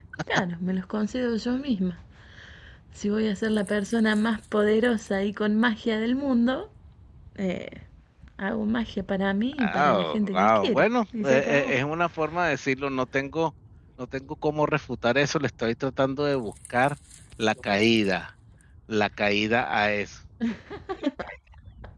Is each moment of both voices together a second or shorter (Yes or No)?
No